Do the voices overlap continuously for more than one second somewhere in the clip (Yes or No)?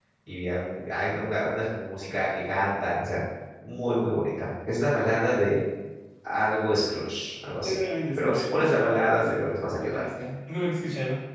Yes